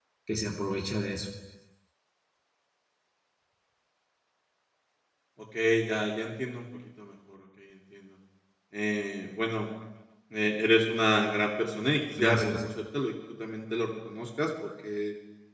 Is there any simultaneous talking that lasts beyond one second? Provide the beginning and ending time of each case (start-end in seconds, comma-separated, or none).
none